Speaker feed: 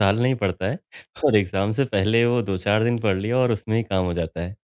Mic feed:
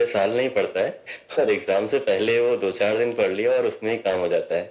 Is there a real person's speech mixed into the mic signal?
No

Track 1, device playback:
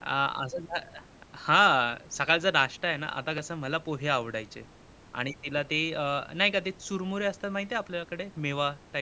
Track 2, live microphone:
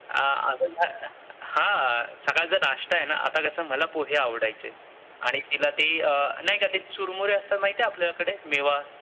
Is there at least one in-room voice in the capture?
No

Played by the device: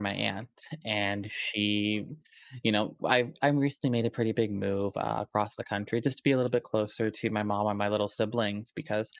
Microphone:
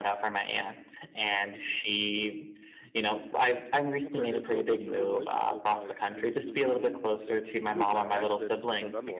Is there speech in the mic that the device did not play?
Yes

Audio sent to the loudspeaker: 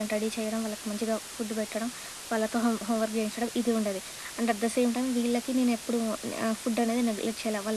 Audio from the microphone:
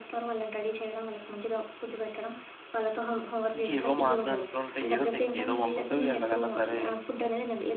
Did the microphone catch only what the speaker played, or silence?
No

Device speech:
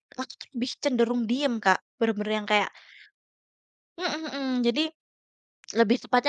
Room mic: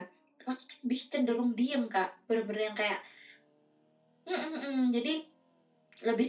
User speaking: No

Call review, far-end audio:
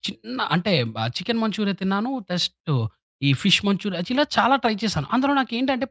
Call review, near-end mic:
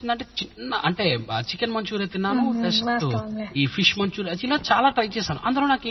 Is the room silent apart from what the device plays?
No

